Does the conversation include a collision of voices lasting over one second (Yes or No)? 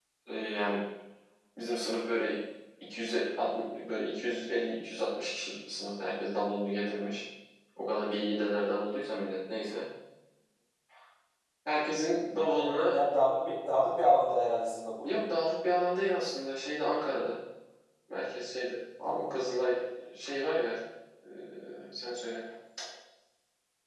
No